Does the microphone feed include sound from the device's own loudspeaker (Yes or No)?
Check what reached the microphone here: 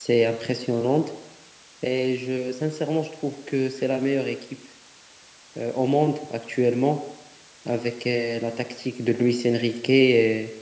No